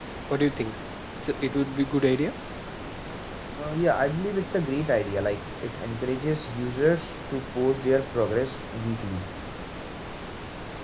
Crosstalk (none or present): none